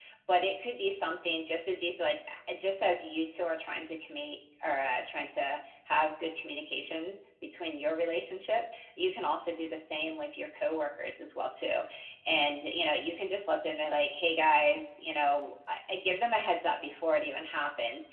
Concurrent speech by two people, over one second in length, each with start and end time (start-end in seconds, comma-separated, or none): none